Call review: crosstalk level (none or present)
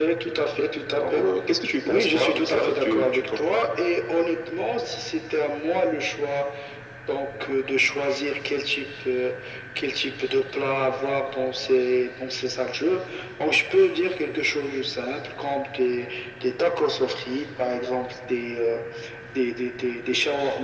present